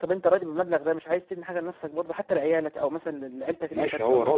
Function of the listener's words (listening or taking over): taking over